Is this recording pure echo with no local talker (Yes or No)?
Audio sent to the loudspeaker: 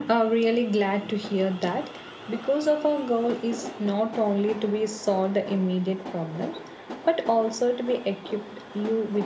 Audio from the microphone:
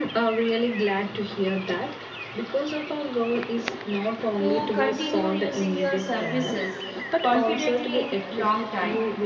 No